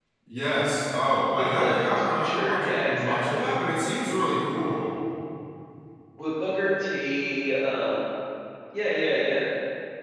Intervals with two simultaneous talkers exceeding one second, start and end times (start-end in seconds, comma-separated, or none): 1.4-3.6